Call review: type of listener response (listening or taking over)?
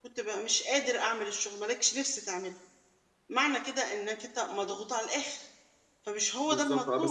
taking over